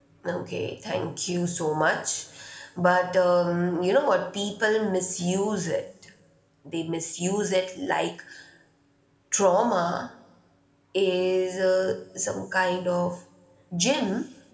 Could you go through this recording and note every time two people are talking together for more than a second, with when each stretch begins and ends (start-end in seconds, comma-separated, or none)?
none